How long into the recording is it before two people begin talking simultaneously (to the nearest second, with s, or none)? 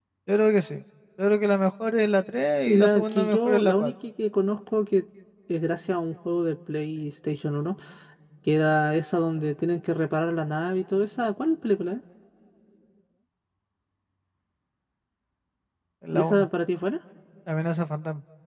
3 s